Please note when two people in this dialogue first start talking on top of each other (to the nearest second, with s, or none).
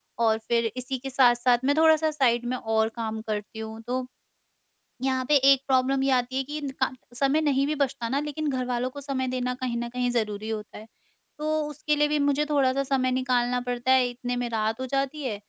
none